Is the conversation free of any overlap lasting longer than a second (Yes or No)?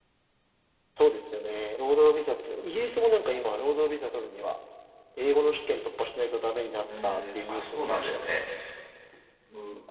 No